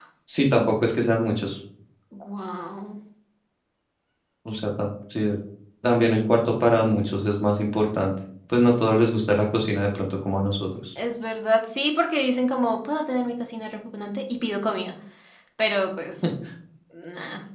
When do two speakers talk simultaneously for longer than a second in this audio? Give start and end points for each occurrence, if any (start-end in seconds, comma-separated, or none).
none